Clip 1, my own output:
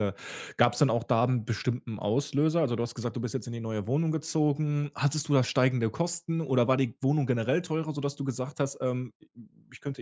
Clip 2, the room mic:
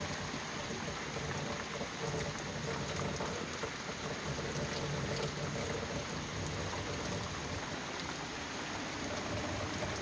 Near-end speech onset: none

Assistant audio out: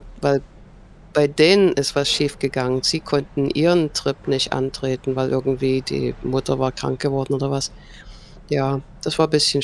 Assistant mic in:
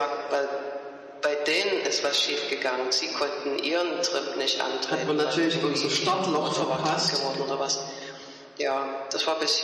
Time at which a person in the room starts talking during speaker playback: 4.8 s

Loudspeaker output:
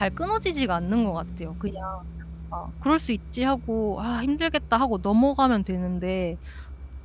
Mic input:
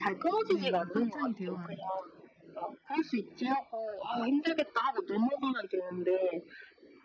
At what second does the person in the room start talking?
0.5 s

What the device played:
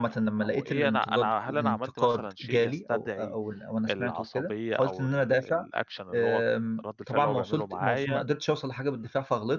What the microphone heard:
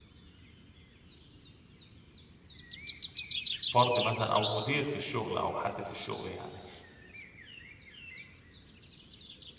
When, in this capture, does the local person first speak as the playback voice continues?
3.7 s

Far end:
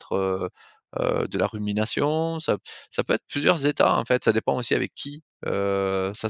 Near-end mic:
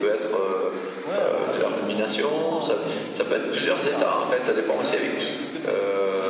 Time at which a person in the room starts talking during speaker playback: 1.0 s

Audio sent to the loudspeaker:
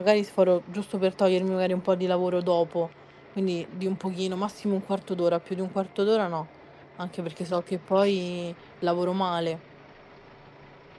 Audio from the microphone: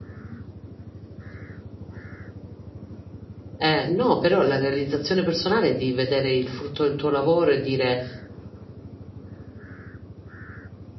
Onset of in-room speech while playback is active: 3.6 s

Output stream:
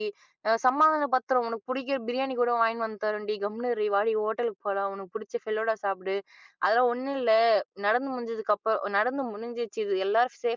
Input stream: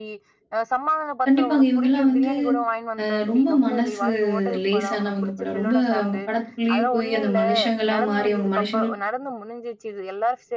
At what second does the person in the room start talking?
1.2 s

